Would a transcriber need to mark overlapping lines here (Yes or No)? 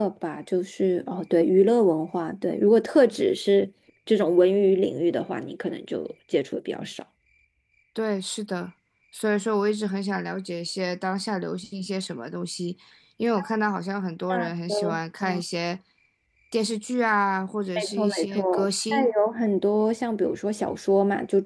Yes